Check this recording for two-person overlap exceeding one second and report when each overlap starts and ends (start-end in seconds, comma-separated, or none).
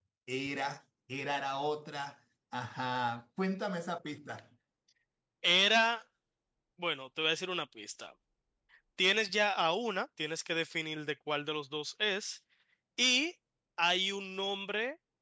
none